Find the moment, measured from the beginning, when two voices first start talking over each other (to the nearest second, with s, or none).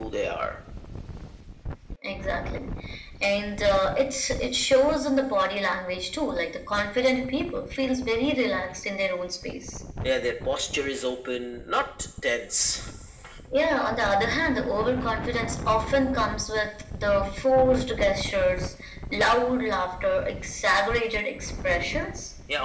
none